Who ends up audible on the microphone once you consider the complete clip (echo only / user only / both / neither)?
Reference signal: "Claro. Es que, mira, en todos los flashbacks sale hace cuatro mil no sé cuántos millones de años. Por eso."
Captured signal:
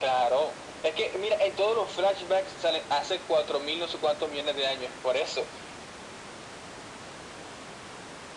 echo only